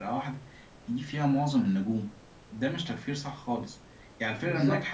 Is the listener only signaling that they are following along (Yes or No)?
Yes